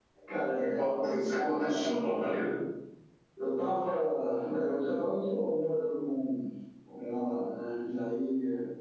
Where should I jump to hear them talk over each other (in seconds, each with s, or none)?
0.6 s